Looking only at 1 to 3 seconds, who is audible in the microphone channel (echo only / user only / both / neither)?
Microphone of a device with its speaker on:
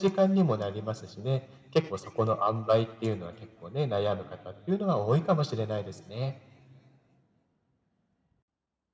echo only